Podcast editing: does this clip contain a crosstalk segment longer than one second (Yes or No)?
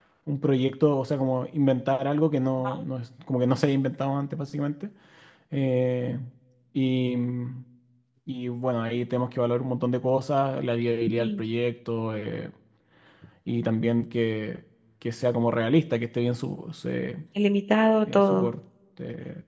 No